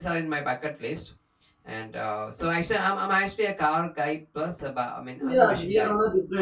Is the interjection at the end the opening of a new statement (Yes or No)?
Yes